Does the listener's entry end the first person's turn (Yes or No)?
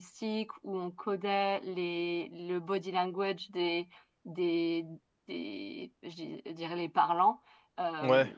No